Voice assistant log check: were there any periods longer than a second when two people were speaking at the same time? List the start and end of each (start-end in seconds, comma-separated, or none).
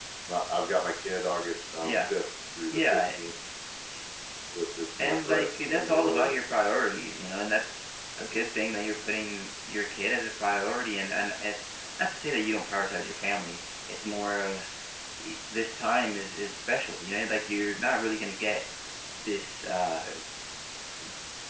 5.0-6.3